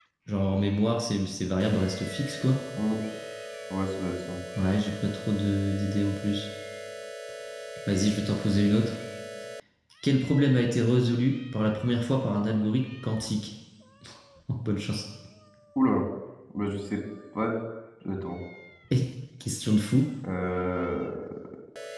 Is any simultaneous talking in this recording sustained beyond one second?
No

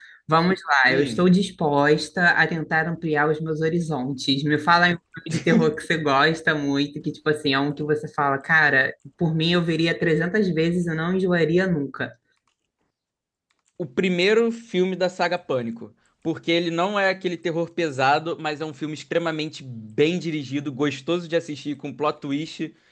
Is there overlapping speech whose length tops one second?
No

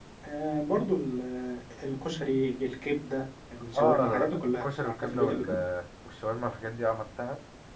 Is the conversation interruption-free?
No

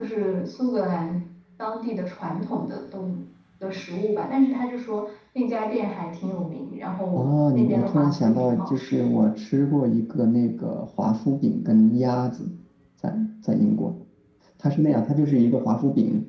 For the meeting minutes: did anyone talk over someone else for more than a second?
Yes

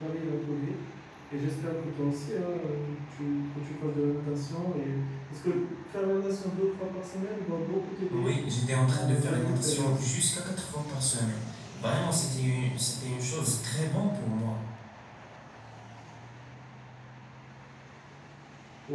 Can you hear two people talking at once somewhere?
Yes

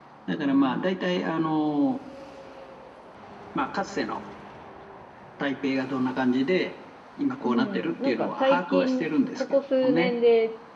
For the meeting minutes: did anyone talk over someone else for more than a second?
Yes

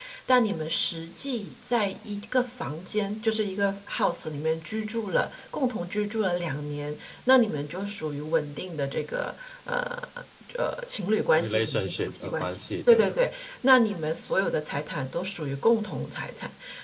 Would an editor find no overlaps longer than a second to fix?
No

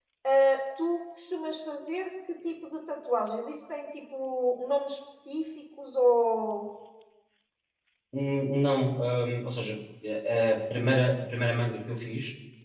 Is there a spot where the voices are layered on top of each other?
No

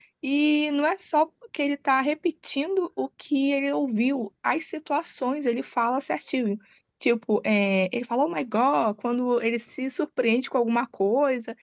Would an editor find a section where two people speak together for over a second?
No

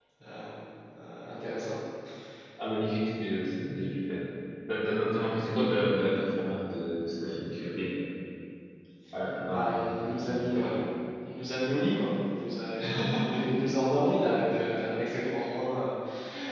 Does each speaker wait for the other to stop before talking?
No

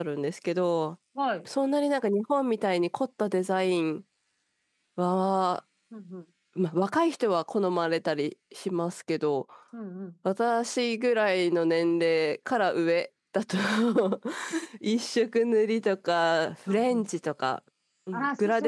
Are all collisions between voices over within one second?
Yes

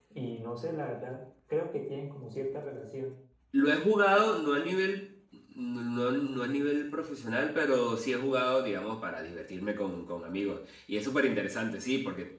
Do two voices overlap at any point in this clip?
No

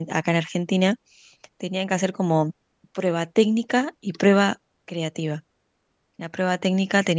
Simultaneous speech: No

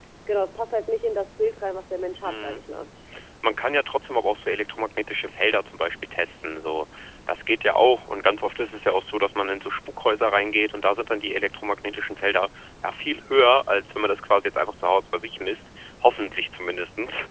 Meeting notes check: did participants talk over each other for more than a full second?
No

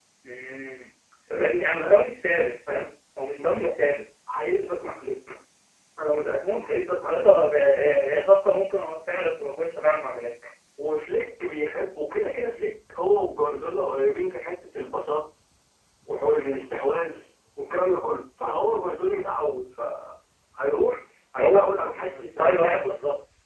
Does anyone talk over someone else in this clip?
Yes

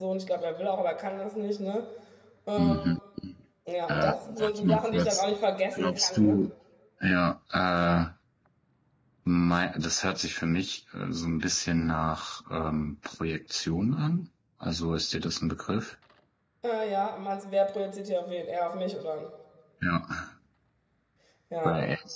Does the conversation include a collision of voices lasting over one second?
Yes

